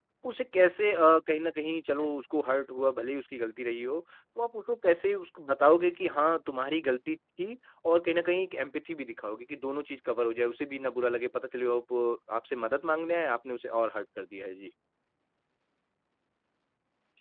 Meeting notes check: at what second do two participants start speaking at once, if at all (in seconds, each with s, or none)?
none